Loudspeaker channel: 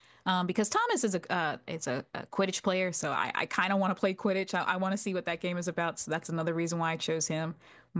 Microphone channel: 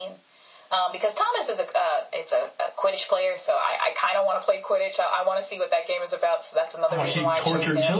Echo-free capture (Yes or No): No